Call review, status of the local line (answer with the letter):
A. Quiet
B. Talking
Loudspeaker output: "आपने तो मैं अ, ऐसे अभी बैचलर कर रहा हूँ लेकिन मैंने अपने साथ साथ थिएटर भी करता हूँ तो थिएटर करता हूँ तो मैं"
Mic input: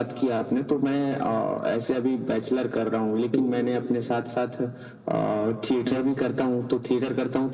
B